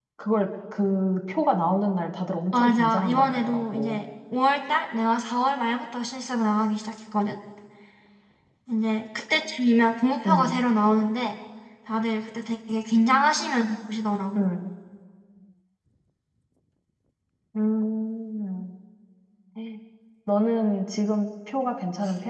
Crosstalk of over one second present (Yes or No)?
Yes